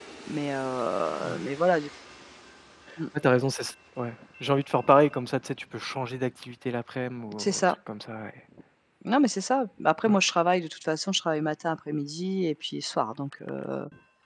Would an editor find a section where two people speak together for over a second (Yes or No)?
No